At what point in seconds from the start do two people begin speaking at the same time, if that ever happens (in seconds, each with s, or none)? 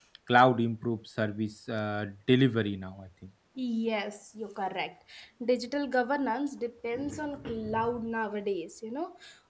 none